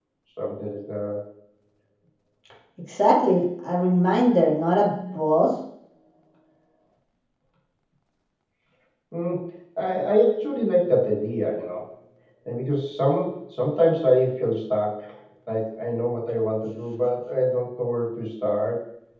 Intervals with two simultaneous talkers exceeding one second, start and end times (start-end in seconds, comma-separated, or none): none